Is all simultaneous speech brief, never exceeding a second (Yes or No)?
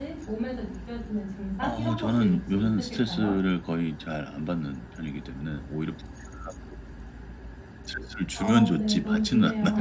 No